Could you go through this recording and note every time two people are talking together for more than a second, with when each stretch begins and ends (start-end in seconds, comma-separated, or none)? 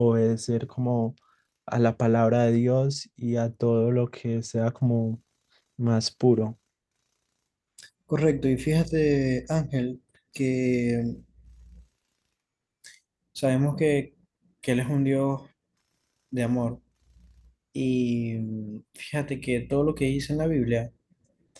none